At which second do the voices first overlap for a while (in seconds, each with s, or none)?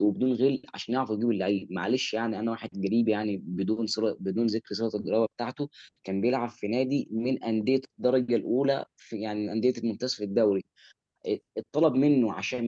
none